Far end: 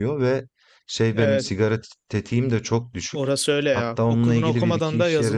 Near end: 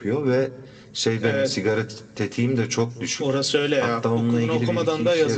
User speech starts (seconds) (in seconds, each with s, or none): none